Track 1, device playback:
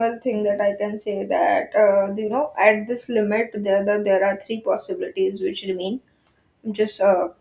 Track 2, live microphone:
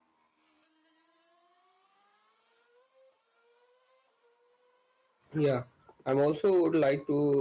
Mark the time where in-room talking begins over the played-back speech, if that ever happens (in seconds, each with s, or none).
5.3 s